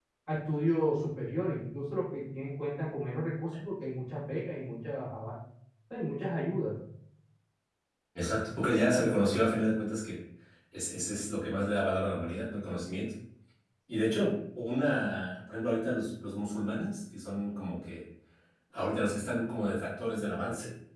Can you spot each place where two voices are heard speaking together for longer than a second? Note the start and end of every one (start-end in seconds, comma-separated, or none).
none